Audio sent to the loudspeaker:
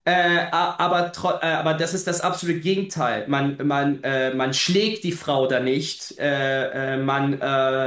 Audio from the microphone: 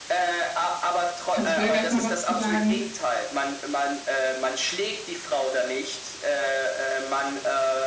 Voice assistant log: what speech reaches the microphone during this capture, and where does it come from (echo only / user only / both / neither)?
both